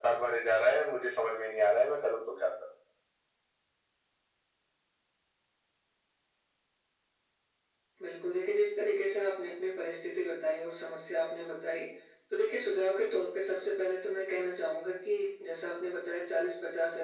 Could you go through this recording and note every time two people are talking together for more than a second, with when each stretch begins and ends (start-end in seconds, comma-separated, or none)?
none